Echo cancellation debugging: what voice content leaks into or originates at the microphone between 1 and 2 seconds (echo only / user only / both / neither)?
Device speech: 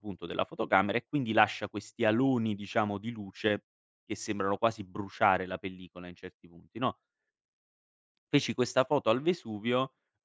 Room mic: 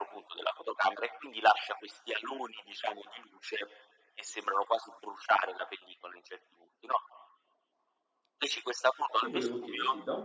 echo only